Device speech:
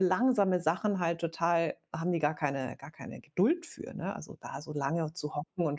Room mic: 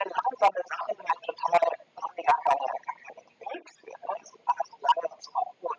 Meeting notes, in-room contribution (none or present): none